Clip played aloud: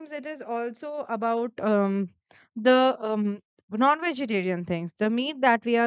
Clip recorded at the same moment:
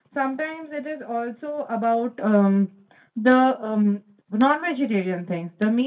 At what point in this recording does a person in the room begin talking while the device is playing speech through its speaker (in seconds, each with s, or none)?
none